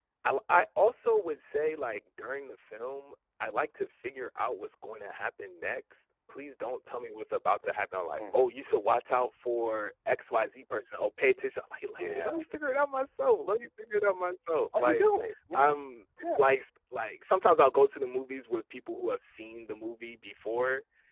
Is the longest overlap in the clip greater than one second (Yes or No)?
No